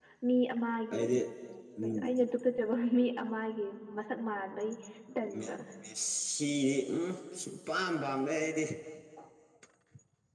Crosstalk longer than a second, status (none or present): none